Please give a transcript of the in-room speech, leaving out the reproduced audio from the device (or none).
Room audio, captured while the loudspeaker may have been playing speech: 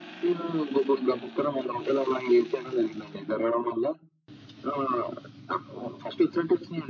none